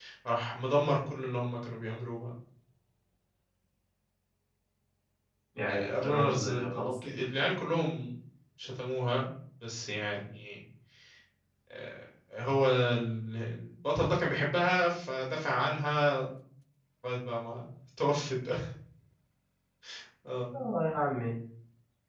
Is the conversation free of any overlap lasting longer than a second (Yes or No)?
No